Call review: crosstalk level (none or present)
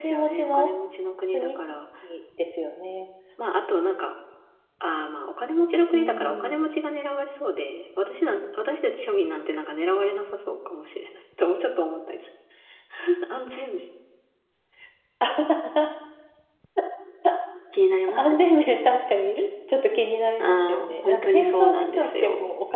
present